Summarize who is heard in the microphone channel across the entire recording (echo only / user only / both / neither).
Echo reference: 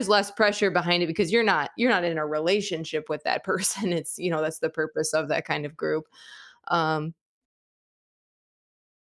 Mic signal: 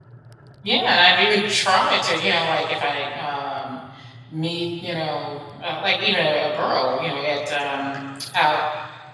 user only